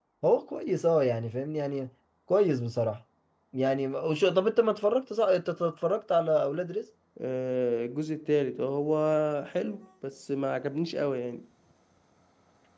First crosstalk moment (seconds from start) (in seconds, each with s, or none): none